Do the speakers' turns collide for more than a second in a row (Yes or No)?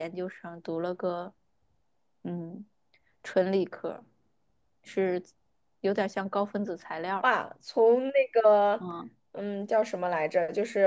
No